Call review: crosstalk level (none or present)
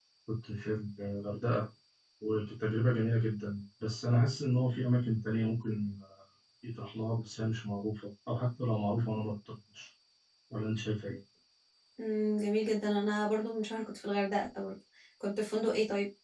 none